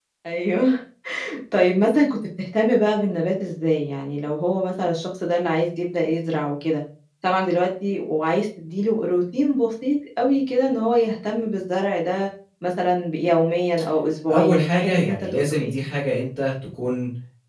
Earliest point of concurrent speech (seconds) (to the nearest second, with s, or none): 14 s